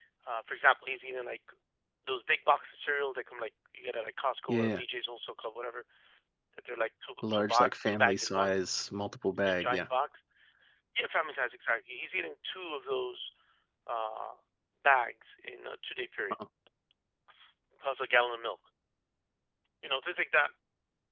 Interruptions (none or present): present